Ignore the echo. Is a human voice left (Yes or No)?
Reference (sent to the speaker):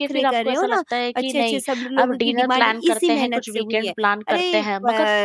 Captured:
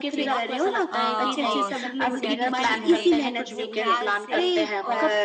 Yes